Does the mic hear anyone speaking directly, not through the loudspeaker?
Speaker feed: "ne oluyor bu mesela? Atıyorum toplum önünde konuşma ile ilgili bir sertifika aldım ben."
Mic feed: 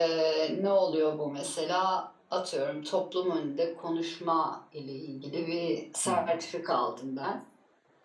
Yes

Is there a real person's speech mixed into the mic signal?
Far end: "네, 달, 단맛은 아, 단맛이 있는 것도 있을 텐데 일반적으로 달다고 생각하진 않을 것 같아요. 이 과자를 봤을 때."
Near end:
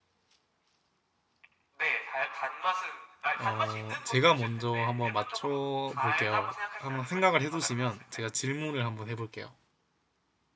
Yes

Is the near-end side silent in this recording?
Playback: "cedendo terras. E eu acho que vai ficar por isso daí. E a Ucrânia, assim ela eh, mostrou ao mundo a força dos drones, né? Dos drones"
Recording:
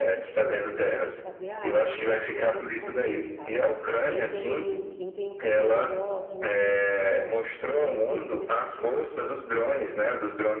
No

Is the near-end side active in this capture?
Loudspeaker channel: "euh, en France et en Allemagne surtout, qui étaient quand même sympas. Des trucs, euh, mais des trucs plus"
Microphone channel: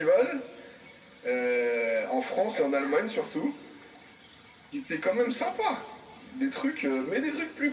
No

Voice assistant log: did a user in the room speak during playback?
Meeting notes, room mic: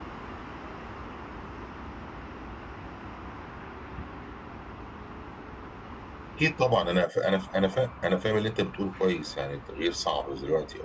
Yes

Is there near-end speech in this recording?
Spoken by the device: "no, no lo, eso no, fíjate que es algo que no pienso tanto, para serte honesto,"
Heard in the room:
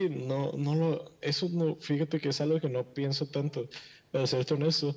No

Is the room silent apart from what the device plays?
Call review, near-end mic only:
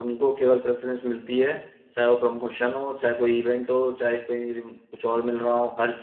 No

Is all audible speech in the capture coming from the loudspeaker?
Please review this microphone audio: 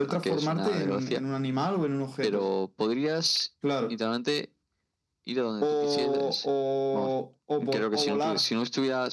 Yes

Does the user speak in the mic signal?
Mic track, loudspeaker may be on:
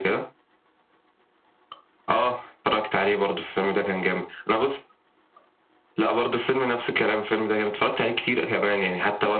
No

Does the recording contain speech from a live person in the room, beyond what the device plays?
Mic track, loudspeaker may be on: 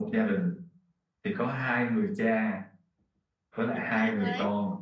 Yes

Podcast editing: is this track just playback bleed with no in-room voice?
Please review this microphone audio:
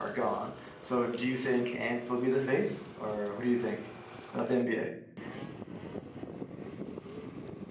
No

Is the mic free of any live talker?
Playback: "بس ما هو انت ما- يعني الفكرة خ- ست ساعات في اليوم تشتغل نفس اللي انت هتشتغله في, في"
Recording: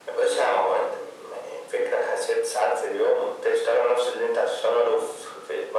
Yes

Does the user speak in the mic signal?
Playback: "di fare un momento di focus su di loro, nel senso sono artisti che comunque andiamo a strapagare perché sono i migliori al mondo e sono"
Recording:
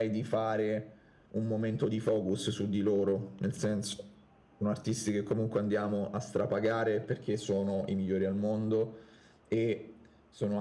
No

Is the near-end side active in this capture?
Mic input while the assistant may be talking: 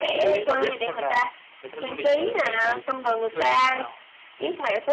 Yes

